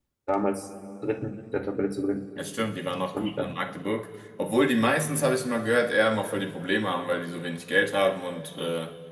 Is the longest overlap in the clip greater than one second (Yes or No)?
No